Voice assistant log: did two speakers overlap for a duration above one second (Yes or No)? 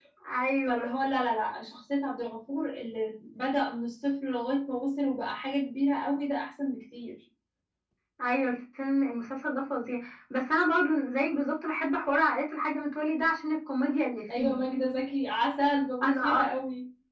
No